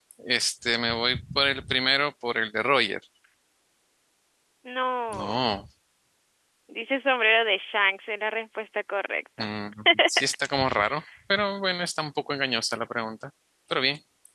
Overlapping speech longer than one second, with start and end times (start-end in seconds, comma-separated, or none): none